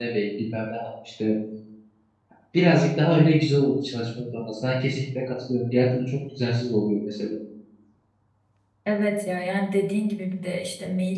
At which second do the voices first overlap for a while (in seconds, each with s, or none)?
none